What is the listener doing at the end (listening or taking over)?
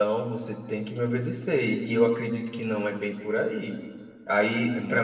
listening